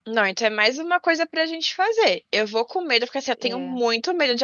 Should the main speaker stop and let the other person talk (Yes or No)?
No